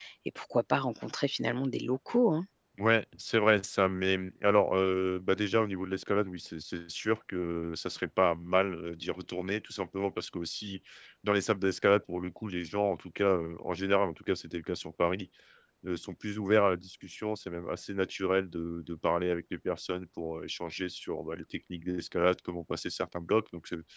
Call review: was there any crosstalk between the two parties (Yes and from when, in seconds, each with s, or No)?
No